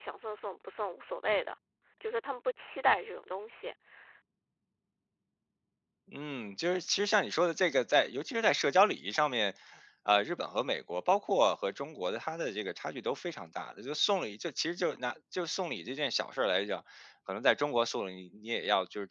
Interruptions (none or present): none